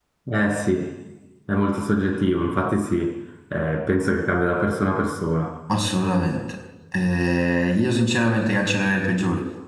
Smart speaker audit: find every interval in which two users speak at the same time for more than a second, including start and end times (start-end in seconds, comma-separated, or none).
none